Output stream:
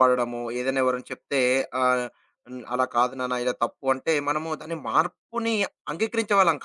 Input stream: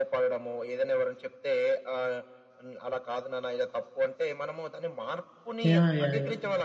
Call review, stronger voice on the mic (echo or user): user